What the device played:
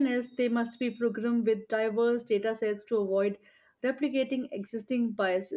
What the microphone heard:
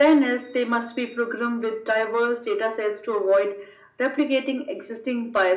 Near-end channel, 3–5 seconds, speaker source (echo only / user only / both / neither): echo only